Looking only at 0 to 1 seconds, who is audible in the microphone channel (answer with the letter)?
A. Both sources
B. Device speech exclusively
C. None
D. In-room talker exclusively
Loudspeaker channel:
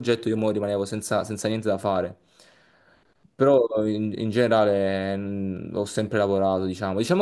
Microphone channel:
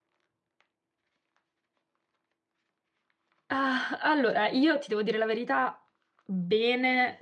C